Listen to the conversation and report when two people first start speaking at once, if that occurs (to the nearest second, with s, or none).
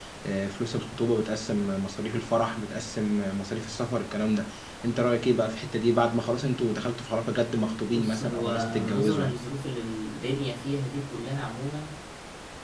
8 s